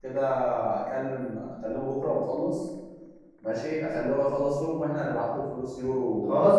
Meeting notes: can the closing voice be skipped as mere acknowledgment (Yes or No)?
No